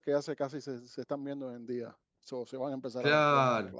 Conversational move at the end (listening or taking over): taking over